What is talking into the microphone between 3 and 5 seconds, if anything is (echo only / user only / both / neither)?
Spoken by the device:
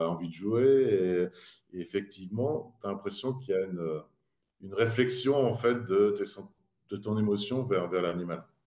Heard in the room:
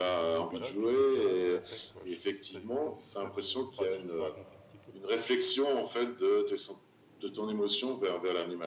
both